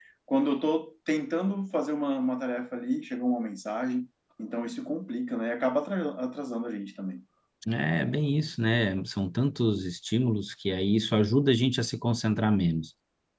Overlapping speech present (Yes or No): No